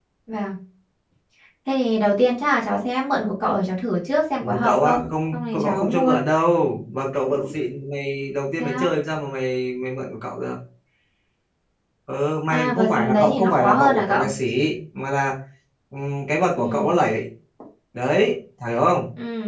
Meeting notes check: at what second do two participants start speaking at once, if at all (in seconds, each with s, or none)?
4.4 s